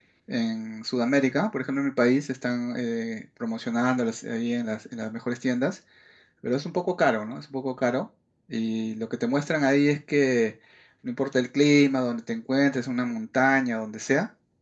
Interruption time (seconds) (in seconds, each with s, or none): none